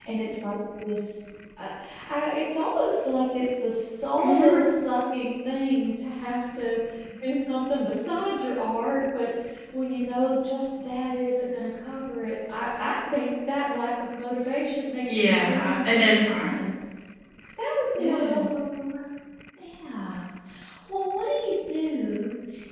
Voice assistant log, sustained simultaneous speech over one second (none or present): present